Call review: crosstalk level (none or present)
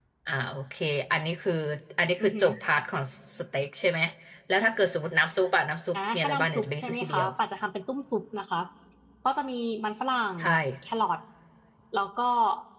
present